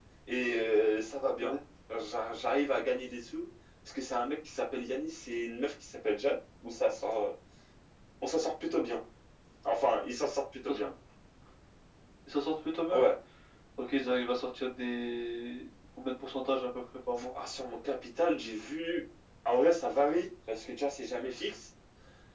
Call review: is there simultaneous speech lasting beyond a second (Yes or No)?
No